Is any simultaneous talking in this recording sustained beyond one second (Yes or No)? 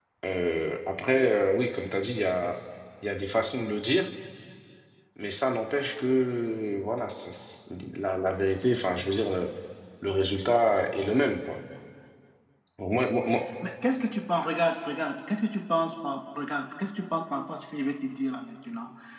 No